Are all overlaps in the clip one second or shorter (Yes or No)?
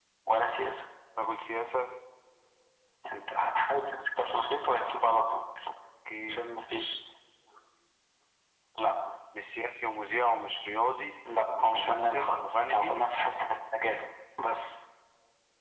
No